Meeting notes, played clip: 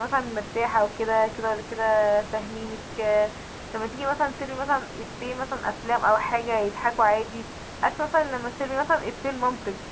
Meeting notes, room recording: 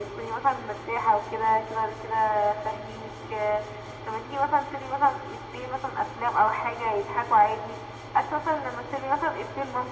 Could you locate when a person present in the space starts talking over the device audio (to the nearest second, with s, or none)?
none